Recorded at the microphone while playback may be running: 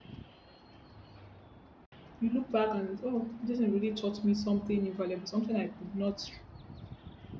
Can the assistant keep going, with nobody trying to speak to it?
No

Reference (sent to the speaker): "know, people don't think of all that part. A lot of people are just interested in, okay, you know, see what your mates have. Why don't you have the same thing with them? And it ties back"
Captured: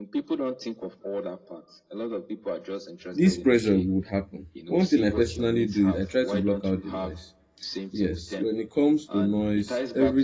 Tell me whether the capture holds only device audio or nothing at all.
No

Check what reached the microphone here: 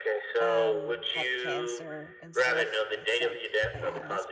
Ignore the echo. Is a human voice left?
Yes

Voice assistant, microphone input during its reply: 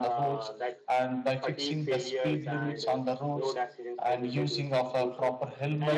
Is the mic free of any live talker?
No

